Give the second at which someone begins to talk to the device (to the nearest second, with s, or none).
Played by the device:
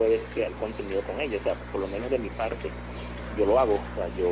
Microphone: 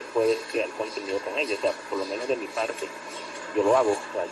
none